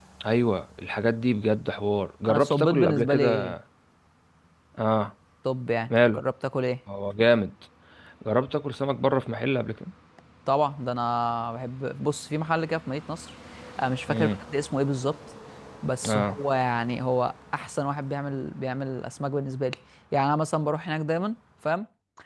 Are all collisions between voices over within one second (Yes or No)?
No